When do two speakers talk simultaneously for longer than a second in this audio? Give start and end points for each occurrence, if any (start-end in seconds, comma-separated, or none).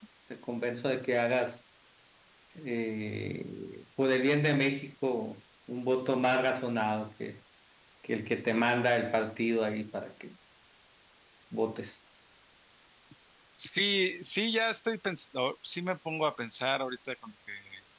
none